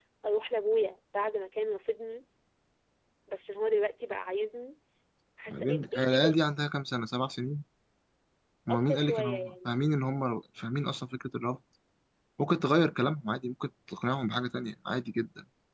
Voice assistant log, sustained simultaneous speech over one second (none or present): present